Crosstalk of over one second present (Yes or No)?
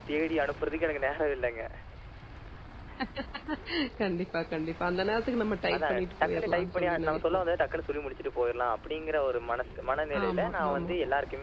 Yes